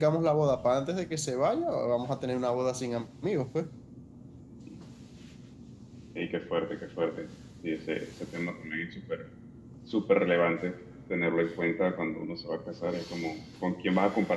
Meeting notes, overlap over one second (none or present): none